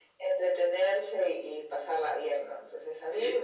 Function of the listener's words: listening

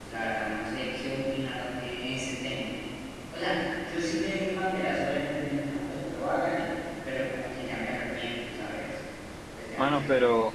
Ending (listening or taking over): taking over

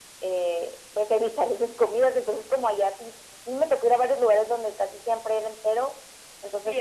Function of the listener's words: taking over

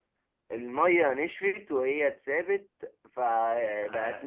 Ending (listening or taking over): listening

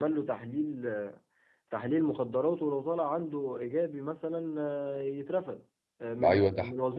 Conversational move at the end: taking over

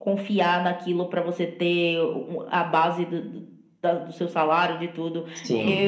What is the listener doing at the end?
taking over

